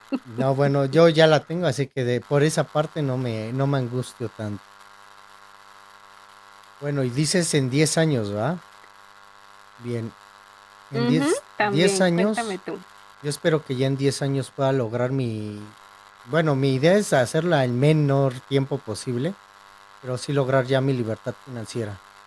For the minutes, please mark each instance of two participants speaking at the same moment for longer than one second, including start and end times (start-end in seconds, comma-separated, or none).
10.9-12.5